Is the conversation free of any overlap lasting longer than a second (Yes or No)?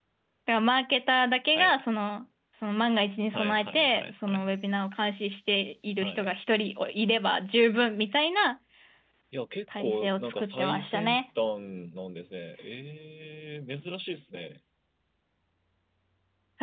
No